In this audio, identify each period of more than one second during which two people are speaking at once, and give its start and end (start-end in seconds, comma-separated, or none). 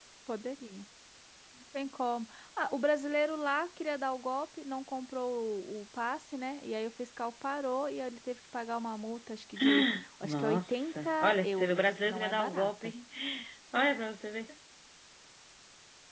10.2-12.9